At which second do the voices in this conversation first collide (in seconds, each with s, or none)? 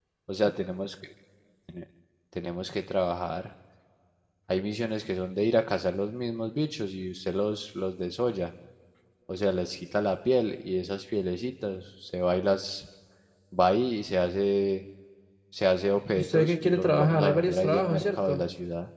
16.1 s